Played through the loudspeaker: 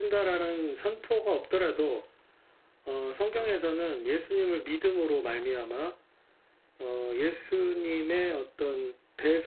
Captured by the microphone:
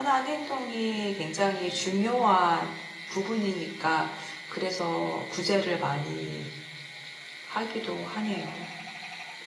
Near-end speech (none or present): present